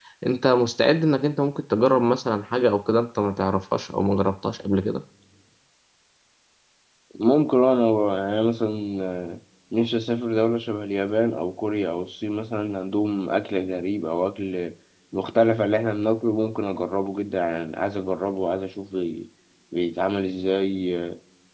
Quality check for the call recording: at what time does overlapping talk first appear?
none

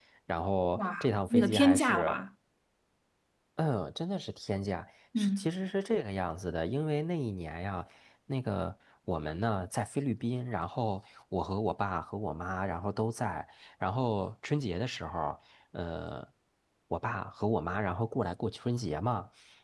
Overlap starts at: 1 s

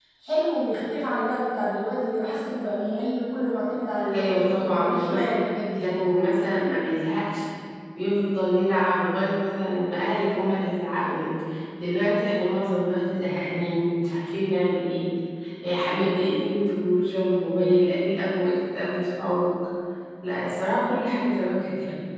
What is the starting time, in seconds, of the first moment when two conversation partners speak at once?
4 s

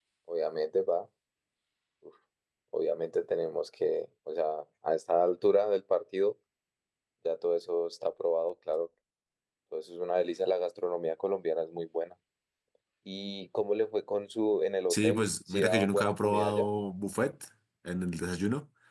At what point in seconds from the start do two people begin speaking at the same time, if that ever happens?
15 s

